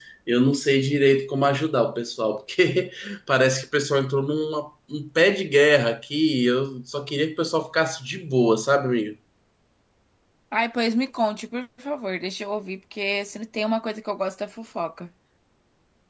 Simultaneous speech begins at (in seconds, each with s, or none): none